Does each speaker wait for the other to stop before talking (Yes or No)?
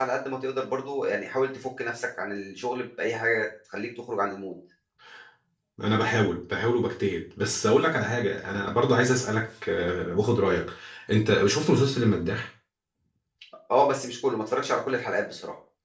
Yes